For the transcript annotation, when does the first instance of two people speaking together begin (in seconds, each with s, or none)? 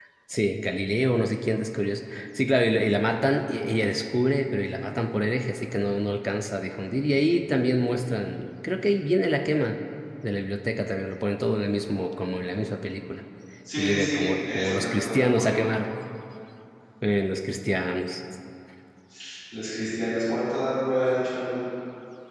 13.7 s